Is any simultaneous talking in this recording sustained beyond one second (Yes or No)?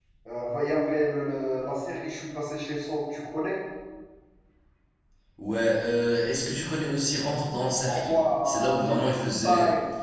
Yes